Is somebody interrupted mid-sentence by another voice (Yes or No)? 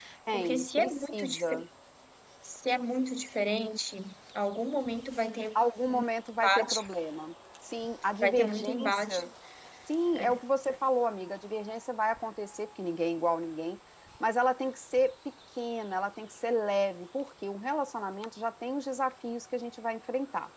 Yes